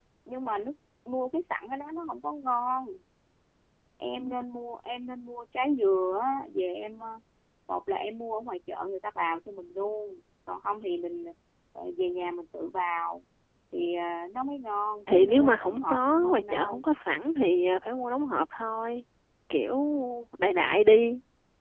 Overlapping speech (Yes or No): Yes